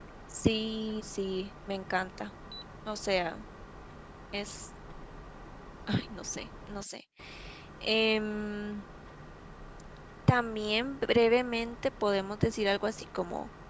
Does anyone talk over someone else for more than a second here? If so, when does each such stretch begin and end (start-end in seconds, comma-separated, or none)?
none